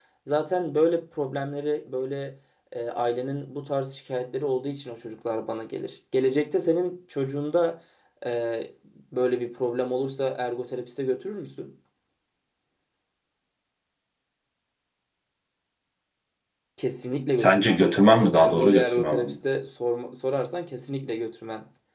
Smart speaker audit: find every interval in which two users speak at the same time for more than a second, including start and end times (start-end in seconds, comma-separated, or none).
17.4-19.4